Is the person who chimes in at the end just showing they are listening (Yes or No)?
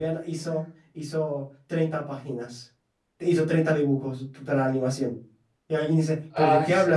Yes